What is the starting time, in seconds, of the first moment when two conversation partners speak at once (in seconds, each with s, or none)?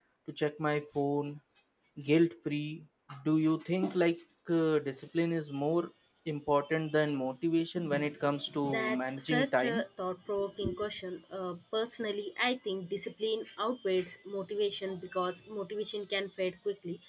8.6 s